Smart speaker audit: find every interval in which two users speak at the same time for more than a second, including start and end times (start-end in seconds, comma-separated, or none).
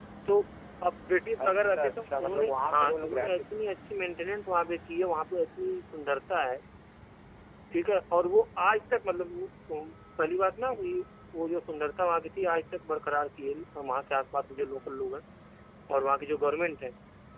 1.4-3.6